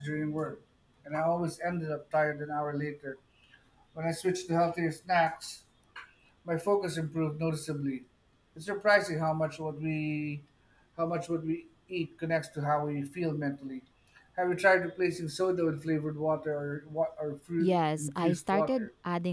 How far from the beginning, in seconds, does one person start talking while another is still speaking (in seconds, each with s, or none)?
17.6 s